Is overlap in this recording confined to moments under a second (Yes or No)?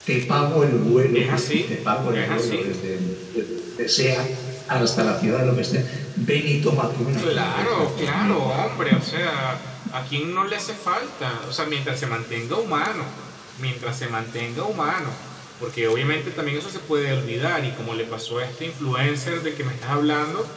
No